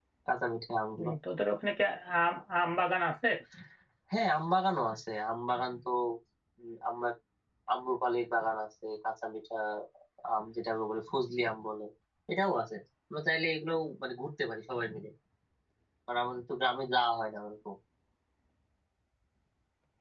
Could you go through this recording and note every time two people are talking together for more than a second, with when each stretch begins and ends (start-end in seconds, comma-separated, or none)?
none